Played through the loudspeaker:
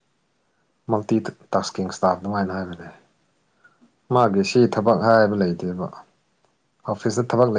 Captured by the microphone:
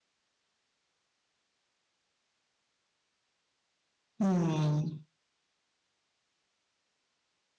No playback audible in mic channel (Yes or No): Yes